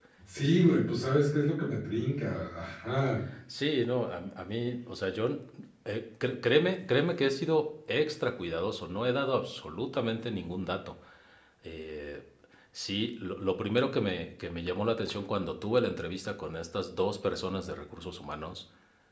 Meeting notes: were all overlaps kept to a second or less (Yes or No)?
Yes